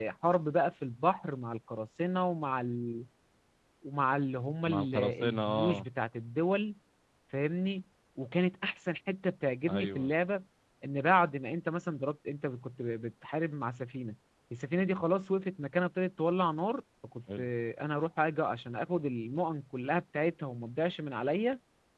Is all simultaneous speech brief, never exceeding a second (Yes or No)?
No